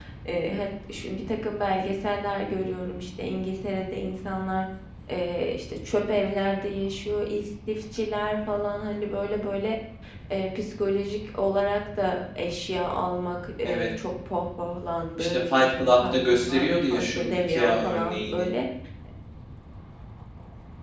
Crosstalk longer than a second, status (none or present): present